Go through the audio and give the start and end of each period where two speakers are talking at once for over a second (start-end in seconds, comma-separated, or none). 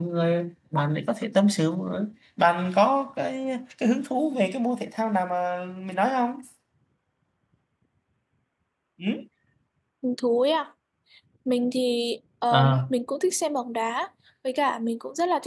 none